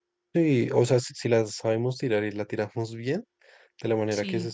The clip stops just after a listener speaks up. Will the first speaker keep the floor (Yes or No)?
Yes